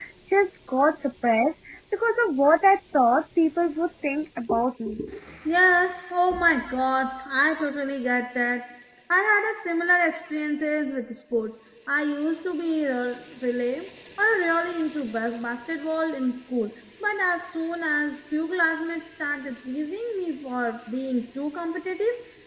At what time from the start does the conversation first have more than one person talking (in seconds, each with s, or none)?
none